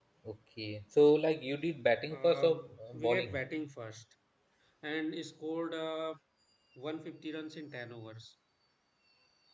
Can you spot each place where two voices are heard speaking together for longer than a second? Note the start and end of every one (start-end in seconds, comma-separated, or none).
2.1-3.4